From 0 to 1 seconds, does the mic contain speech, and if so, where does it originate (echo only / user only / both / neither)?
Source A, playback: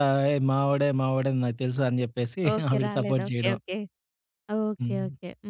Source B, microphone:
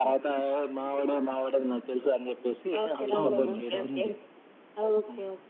echo only